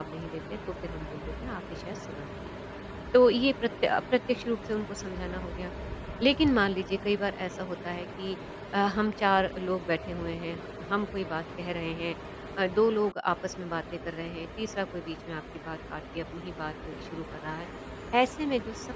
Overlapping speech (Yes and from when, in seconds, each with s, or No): No